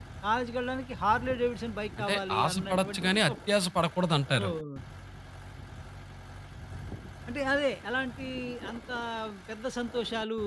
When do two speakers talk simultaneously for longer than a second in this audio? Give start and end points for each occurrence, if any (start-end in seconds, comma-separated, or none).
2.0-3.3